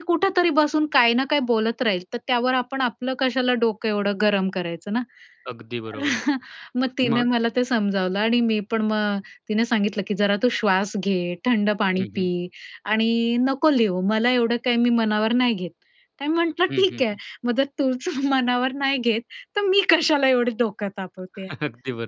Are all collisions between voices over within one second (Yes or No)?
Yes